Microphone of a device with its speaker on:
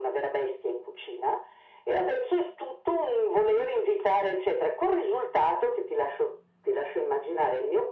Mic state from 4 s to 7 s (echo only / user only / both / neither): echo only